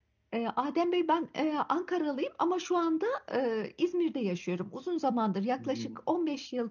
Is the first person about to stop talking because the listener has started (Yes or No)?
No